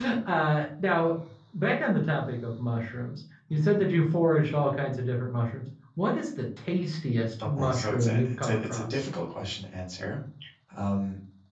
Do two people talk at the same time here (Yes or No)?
Yes